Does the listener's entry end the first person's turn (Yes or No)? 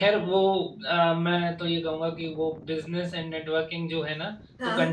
No